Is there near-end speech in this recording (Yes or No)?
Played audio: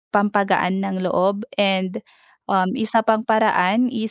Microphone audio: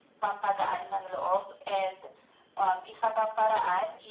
No